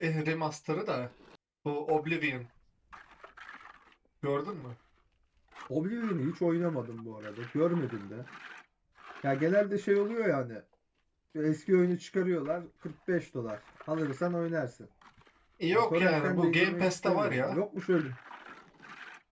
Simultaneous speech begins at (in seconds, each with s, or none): 15.7 s